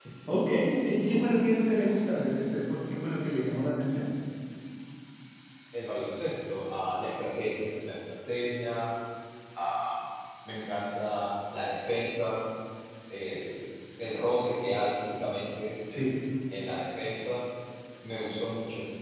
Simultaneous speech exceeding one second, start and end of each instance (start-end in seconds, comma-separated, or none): none